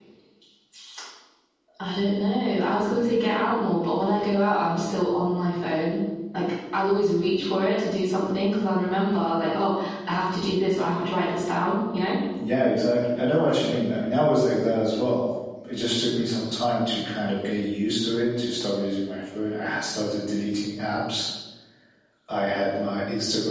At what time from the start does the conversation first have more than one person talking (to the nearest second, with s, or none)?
none